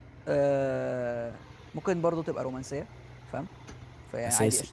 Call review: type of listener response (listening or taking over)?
listening